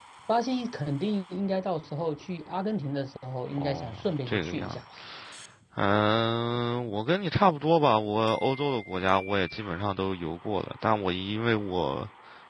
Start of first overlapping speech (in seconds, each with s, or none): 3.6 s